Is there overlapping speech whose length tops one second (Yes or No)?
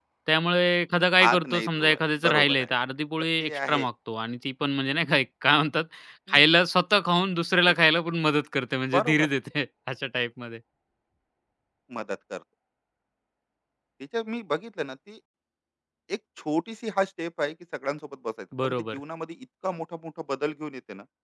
Yes